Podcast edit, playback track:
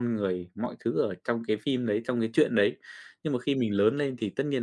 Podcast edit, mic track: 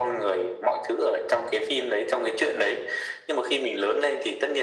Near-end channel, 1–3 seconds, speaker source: echo only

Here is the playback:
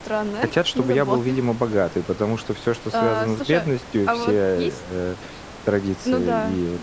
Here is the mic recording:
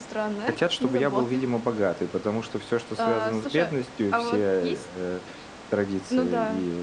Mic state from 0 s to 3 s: echo only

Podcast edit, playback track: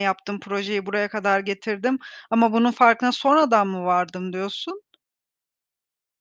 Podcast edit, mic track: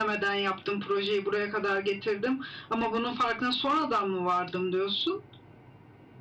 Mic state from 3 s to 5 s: echo only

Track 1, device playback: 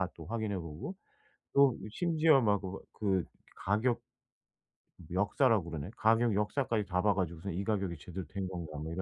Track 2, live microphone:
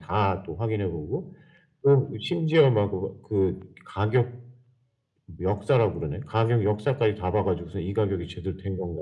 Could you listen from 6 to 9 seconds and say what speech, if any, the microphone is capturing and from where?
echo only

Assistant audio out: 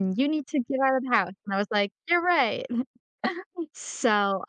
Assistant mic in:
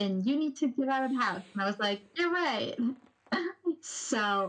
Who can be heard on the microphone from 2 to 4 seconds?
echo only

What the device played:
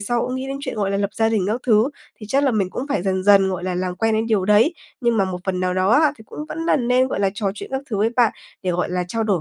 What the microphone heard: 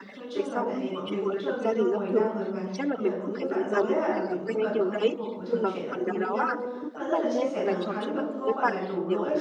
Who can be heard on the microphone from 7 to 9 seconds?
both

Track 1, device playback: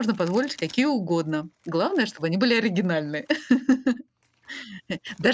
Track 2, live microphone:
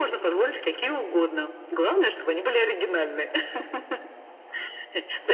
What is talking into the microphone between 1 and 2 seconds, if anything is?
echo only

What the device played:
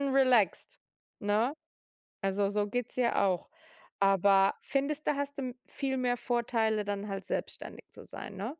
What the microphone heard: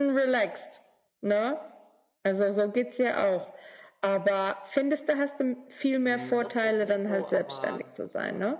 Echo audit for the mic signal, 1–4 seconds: echo only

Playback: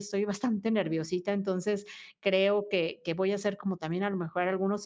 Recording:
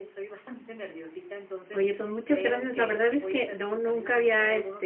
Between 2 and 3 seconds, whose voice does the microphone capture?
both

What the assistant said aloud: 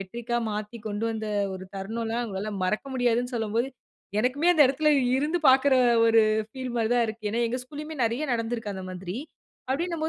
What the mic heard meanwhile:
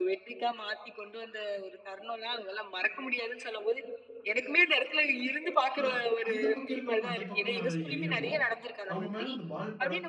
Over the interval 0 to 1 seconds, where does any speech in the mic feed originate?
echo only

